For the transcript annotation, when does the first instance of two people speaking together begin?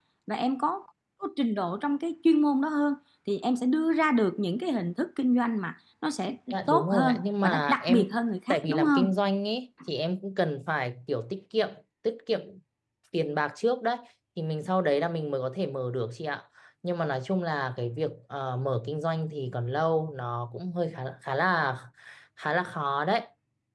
6.5 s

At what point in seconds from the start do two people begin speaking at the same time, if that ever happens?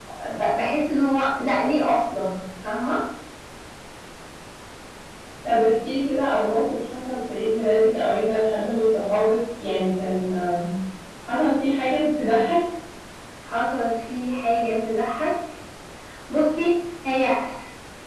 none

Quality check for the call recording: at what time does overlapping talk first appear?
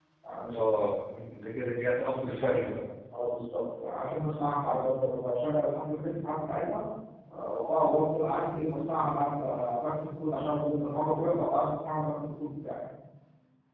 none

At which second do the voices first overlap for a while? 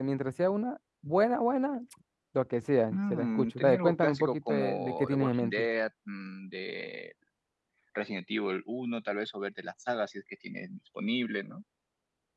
2.9 s

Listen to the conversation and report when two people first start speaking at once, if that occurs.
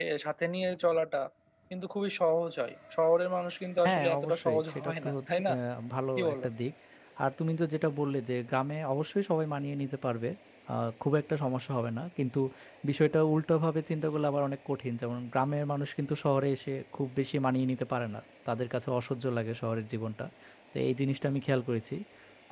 3.9 s

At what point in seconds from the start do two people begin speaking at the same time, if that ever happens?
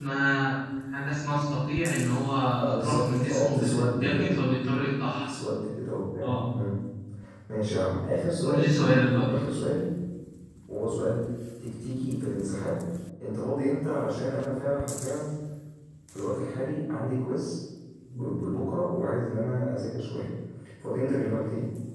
2.6 s

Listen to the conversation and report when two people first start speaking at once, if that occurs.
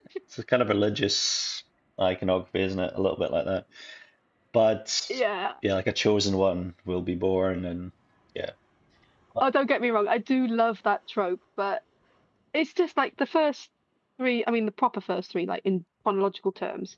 none

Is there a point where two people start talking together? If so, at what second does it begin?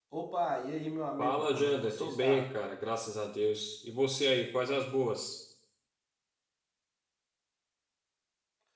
1.2 s

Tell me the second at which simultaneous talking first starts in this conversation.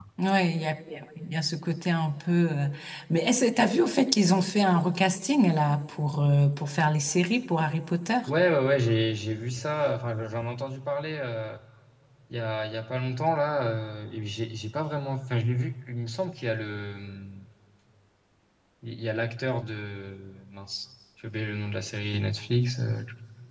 none

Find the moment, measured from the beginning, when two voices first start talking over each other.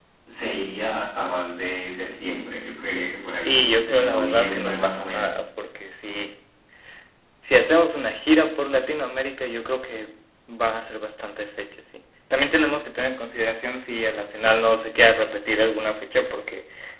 3.5 s

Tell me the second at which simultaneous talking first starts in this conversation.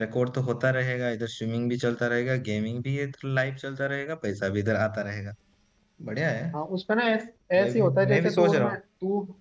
7.6 s

